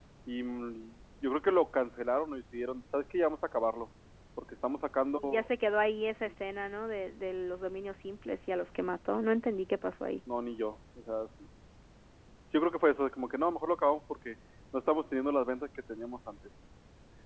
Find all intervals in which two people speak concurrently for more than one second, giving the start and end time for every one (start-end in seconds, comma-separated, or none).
none